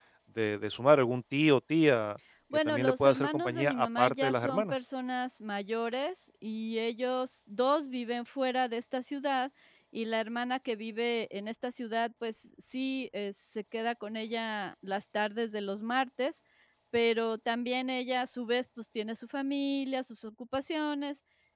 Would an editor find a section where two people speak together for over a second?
Yes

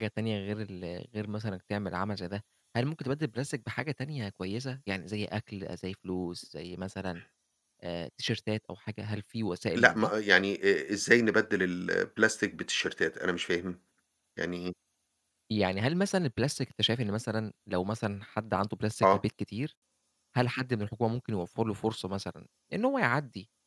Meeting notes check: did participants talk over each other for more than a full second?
No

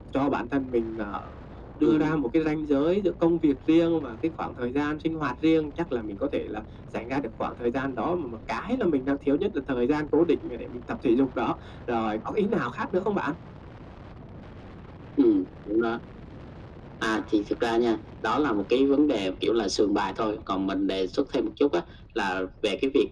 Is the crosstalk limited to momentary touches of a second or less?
Yes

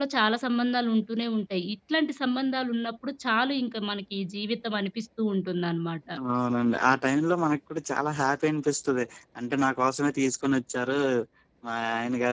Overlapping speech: No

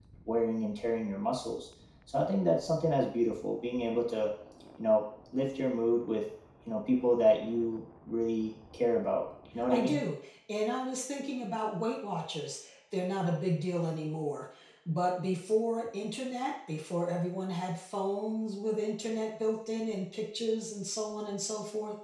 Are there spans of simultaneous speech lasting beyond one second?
No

